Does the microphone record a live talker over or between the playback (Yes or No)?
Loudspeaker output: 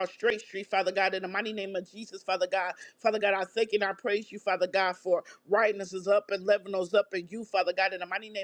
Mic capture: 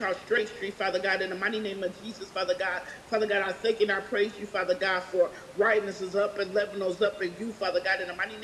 No